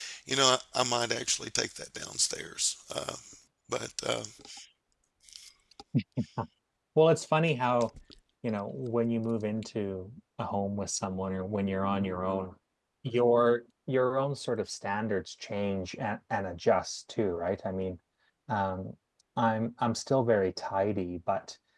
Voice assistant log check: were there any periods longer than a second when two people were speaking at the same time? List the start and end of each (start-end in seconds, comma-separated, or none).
none